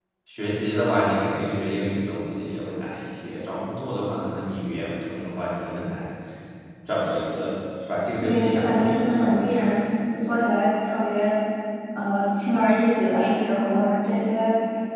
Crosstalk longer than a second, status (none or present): present